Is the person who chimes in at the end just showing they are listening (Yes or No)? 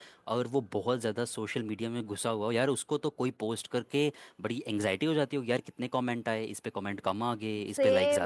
No